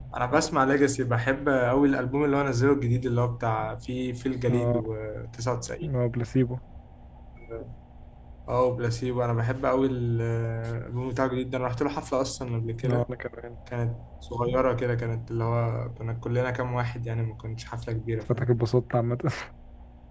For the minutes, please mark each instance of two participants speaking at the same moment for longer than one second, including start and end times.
none

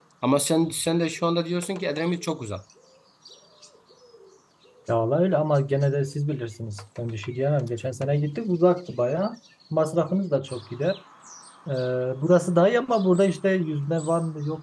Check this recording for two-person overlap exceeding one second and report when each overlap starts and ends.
none

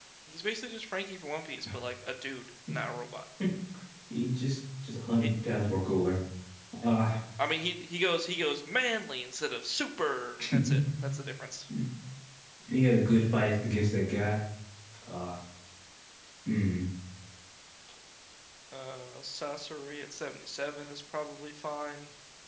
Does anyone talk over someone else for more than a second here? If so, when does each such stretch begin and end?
none

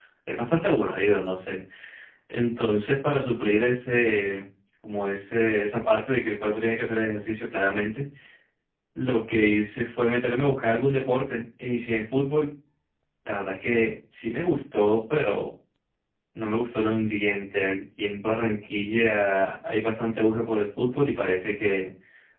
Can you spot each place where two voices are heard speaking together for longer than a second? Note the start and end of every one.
none

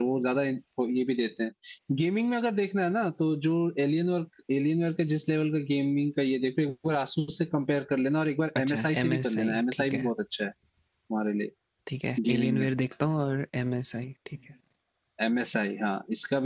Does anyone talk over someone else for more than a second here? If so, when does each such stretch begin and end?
8.6-10.1

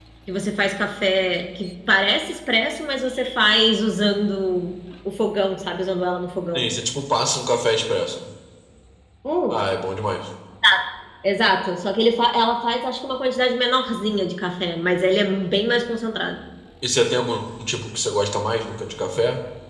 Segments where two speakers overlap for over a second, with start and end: none

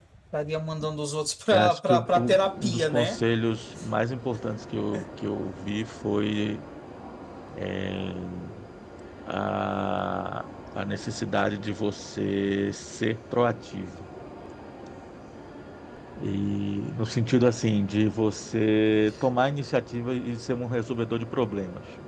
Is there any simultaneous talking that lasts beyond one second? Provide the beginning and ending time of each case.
1.5-3.2

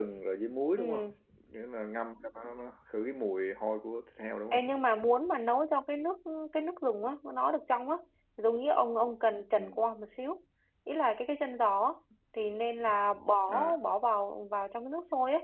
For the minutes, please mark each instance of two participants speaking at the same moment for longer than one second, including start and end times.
none

